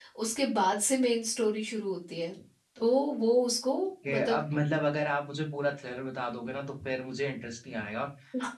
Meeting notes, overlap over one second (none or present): none